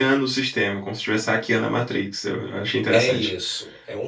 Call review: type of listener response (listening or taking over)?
taking over